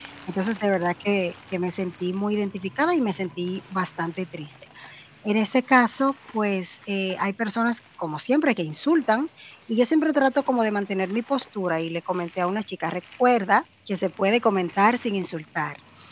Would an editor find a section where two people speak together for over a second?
No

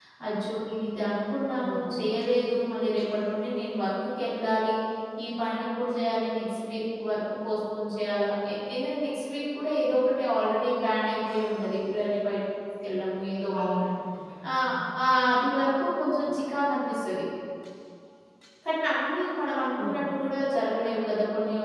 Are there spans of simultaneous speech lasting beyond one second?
No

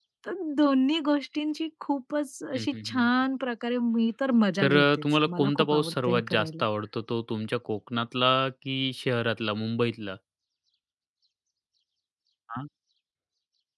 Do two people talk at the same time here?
Yes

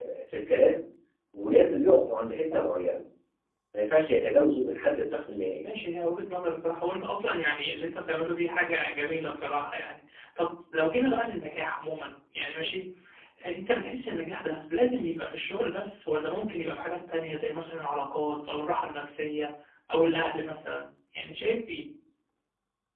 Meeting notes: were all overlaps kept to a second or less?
Yes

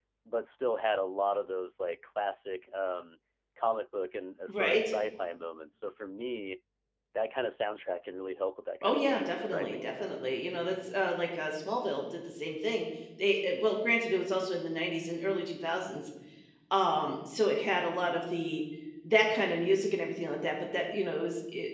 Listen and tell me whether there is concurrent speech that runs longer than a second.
Yes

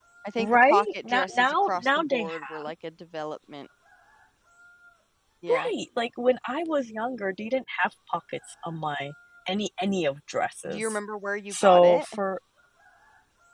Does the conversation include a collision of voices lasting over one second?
Yes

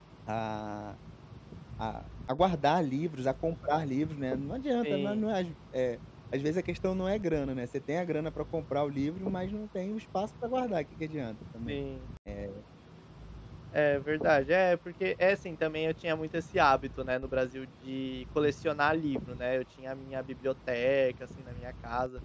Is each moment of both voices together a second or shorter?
Yes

